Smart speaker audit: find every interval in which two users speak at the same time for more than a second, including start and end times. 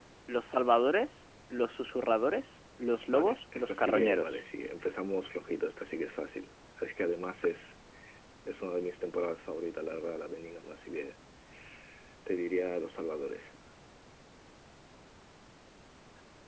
3.1-4.4

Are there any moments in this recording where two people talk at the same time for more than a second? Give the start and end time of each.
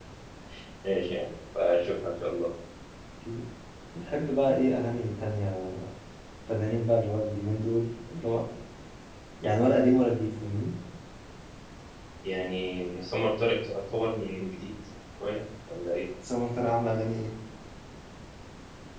none

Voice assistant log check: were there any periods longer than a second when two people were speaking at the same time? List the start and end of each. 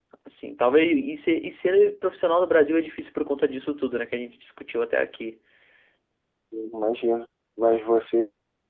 none

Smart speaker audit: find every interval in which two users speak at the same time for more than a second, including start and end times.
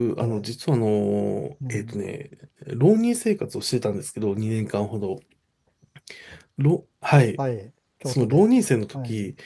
none

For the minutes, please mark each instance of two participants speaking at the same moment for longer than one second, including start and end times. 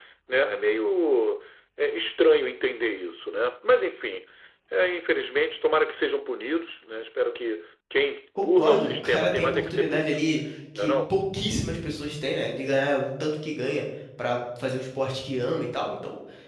8.4-10.3

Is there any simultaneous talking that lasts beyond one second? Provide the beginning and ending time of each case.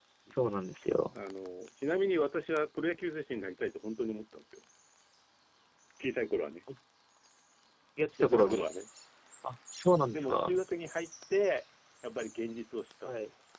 none

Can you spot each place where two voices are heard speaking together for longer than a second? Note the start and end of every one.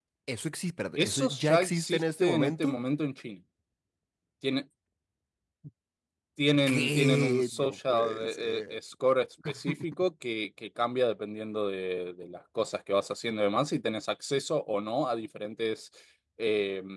1.0-2.7, 6.7-8.8

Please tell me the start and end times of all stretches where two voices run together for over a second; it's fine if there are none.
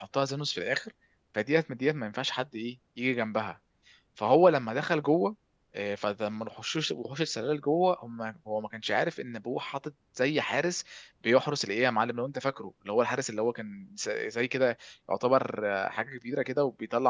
none

